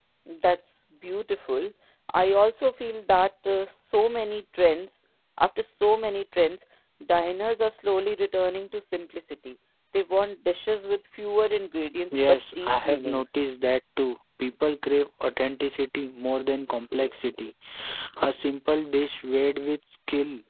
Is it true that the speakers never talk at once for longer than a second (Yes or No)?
No